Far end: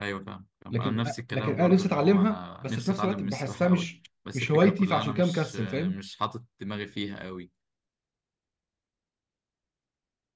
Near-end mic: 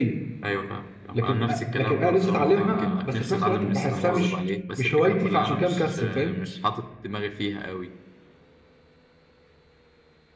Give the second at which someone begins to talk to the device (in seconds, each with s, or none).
2.1 s